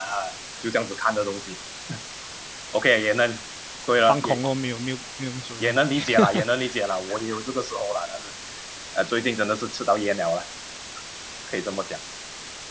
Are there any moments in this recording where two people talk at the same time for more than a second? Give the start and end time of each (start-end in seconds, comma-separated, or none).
none